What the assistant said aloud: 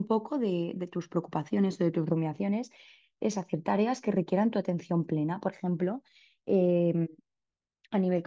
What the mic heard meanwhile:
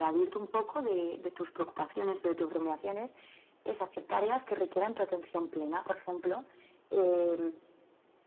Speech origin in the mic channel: echo only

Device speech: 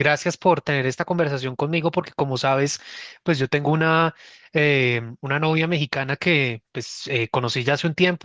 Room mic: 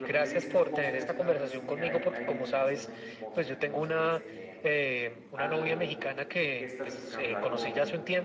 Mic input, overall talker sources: both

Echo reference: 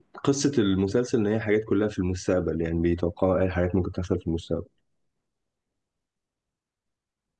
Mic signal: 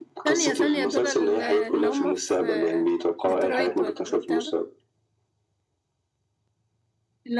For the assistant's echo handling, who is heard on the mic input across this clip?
both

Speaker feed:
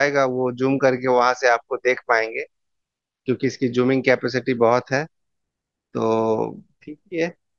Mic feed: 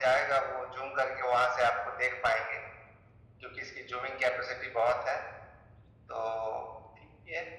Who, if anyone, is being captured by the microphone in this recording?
echo only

